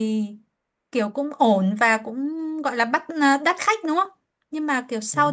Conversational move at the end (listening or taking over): listening